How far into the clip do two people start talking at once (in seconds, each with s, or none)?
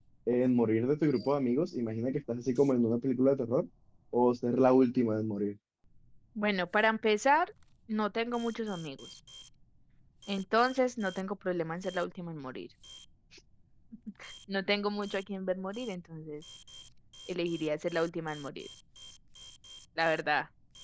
none